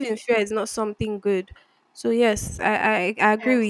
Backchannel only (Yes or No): No